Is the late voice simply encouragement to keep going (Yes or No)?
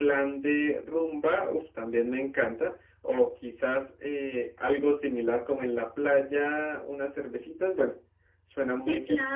No